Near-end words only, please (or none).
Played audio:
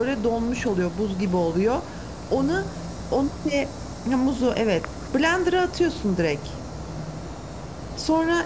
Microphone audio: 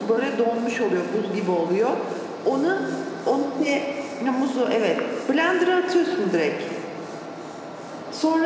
none